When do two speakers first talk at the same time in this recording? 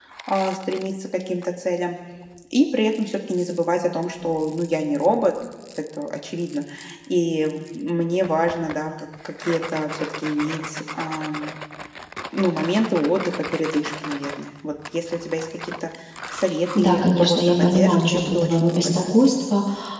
16.8 s

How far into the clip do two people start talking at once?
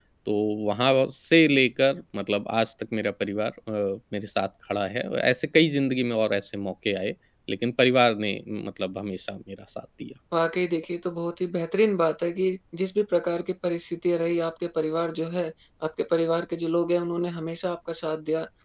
none

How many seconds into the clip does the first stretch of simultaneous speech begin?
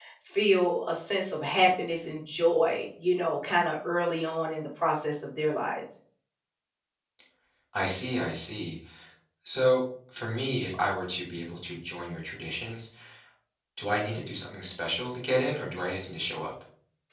none

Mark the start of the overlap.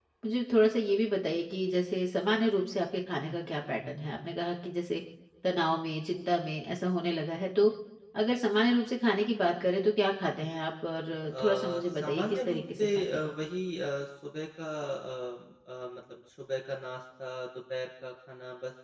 11.3 s

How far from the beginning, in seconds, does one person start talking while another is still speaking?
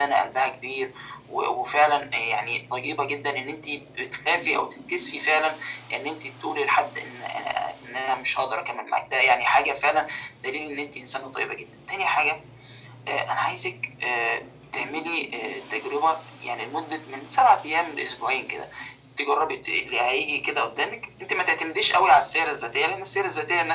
none

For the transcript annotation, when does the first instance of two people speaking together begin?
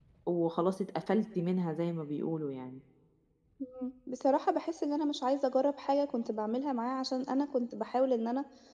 none

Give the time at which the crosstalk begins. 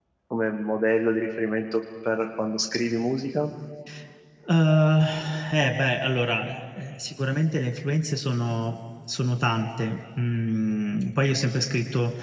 none

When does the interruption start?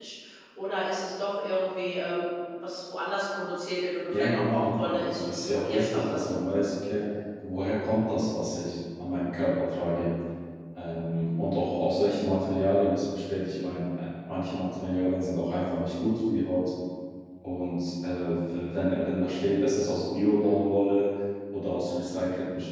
4.1 s

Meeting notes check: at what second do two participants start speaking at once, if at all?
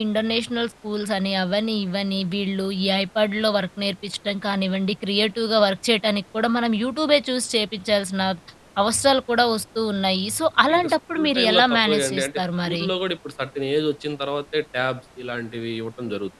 10.7 s

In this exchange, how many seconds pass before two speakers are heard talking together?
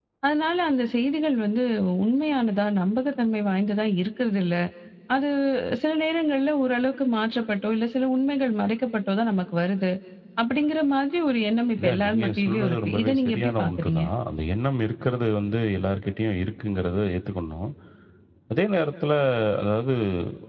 11.8 s

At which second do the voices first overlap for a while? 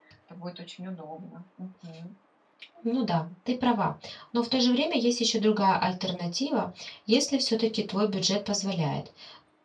none

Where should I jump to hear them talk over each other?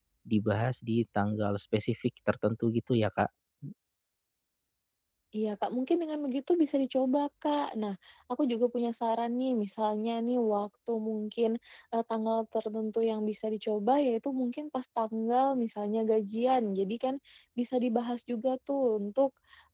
none

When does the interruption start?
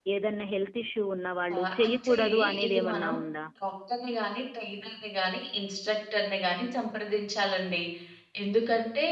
1.5 s

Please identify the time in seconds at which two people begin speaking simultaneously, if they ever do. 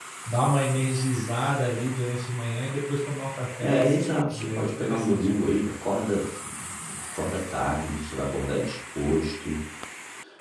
3.6 s

